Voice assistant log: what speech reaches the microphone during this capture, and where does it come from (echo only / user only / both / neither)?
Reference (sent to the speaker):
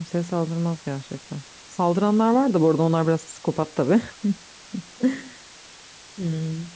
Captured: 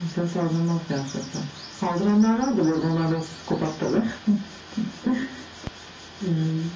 echo only